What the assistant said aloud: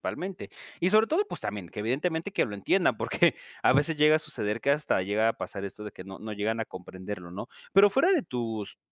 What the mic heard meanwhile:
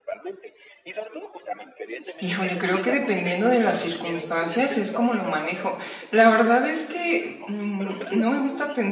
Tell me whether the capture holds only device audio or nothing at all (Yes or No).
No